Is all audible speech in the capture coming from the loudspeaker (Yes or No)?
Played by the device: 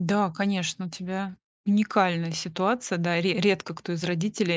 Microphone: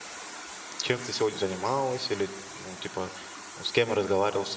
No